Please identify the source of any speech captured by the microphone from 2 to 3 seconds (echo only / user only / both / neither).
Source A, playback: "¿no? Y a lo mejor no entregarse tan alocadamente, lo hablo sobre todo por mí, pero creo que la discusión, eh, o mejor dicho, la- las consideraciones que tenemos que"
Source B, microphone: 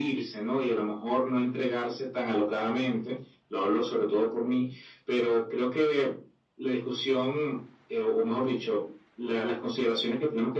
echo only